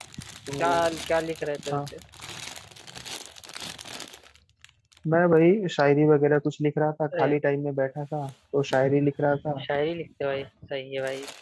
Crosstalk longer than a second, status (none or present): none